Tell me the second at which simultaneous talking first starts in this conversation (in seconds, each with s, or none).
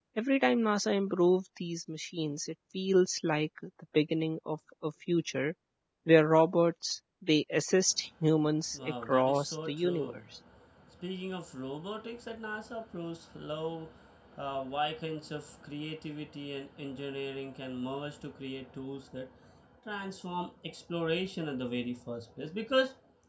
8.7 s